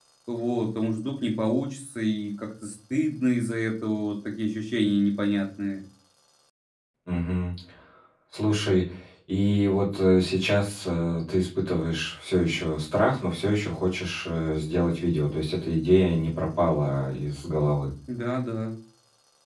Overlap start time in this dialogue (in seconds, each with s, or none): none